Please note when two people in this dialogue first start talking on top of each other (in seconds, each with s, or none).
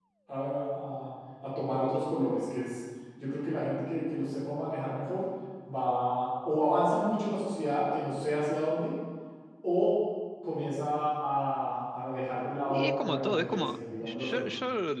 12.7 s